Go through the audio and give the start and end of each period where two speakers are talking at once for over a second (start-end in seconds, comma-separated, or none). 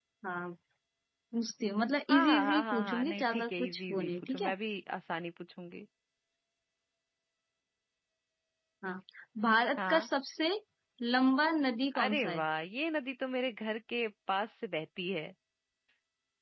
2.1-4.5